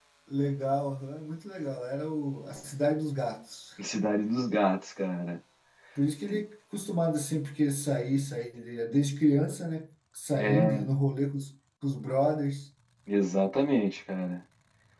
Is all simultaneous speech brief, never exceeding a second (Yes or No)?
Yes